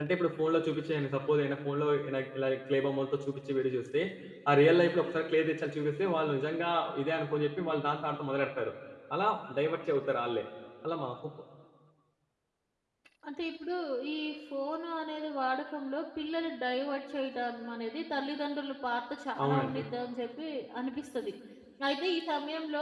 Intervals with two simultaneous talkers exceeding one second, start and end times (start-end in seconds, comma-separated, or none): none